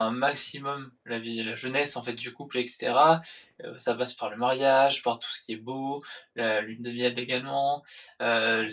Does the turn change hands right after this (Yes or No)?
No